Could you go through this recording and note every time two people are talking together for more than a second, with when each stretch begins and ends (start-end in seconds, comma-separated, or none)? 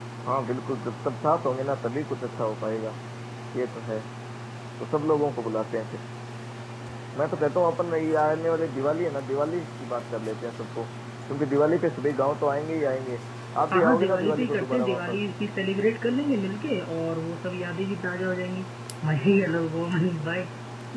13.7-15.2